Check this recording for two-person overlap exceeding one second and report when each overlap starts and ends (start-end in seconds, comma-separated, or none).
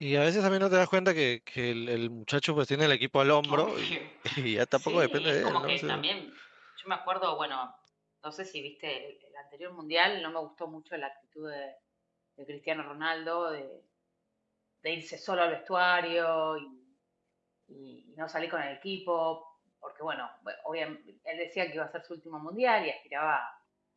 4.7-6.0